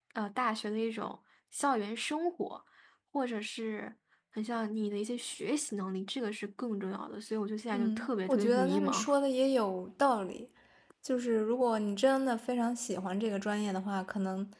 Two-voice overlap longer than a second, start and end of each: 7.7-9.0

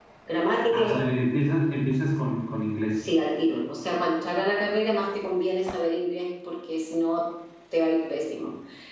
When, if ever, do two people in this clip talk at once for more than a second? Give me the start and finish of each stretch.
none

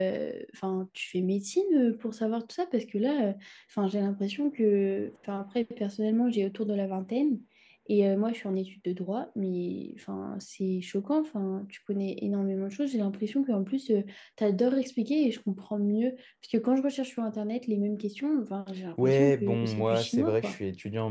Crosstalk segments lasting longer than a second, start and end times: 19.0-20.6

